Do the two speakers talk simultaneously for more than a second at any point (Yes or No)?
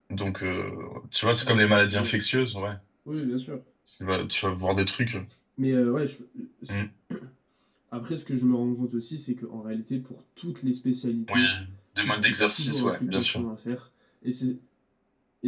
Yes